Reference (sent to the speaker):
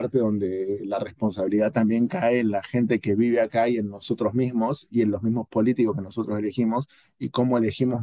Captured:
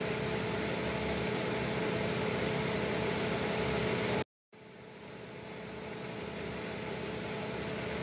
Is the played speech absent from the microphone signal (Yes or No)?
Yes